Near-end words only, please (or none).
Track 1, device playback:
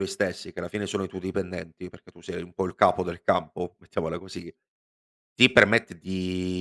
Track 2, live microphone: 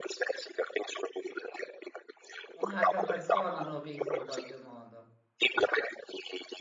Un'altra persona hanno visto in qualche modo.